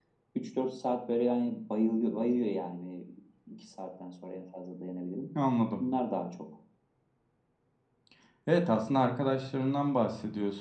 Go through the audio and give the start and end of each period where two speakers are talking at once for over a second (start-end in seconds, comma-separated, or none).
none